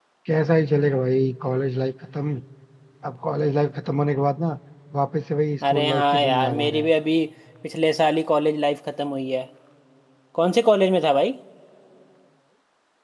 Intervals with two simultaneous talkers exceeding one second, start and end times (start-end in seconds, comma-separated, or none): 5.7-6.9